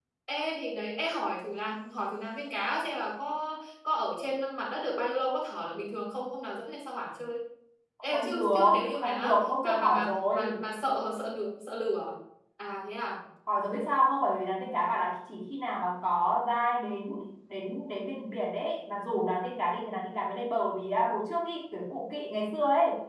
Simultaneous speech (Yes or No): Yes